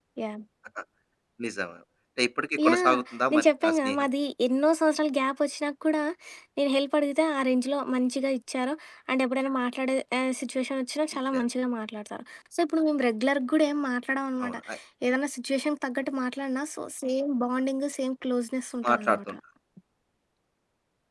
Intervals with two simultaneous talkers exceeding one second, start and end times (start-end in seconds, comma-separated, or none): 2.6-4.1